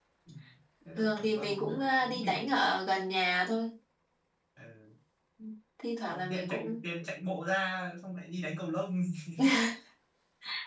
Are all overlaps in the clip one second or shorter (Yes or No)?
No